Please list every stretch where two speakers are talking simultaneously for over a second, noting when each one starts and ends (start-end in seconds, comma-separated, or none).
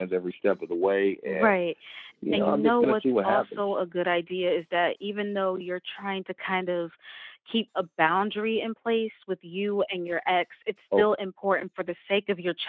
2.3-3.7